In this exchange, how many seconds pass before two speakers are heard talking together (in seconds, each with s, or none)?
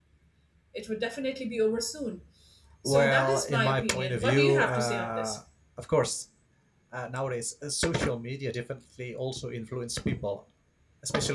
2.8 s